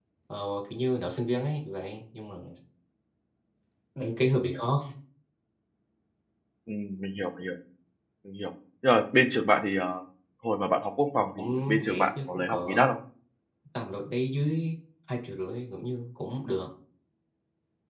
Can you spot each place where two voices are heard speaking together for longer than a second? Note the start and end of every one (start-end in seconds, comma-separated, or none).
11.4-12.9